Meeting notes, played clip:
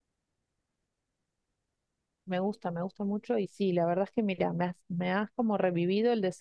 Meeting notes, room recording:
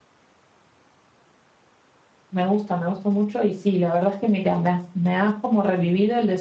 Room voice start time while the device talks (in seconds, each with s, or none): none